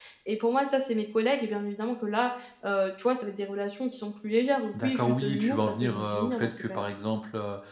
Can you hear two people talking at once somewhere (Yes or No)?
Yes